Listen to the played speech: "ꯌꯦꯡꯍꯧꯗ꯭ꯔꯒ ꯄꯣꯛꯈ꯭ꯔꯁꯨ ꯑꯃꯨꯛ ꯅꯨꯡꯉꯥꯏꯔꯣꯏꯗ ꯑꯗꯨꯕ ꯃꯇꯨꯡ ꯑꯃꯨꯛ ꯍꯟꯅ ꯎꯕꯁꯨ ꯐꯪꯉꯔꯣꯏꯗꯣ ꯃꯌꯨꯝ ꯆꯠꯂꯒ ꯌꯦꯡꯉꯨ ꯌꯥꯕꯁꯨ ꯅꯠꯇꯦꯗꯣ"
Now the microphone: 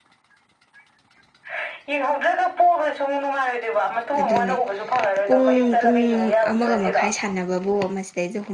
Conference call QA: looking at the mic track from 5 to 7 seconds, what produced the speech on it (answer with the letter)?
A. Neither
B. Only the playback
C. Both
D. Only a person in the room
C